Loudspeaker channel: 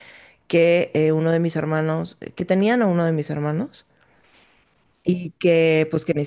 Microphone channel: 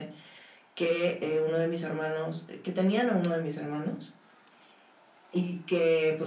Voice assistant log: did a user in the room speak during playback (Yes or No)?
No